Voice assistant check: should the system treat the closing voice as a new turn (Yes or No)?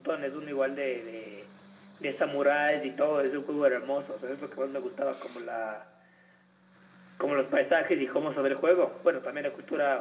No